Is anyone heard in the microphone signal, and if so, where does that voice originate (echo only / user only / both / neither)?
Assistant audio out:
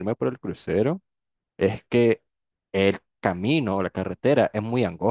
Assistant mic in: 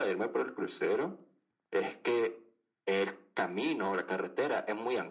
echo only